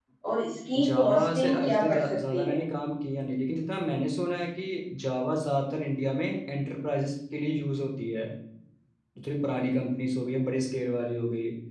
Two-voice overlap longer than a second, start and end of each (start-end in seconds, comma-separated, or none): 0.8-2.6